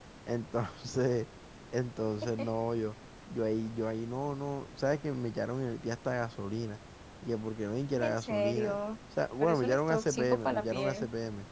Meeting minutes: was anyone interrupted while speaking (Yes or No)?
Yes